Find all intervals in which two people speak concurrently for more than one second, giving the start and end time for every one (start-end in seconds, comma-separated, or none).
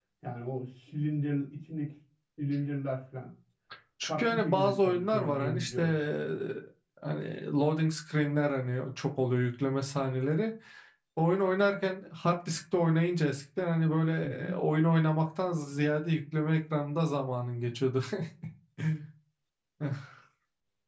4.1-5.9